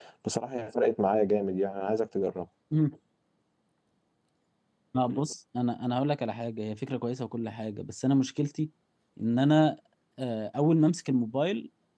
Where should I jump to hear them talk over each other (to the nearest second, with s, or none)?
none